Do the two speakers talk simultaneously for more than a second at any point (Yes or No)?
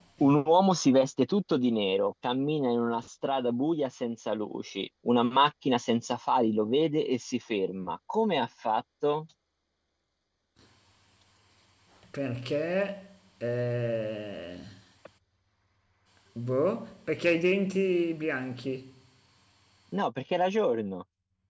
No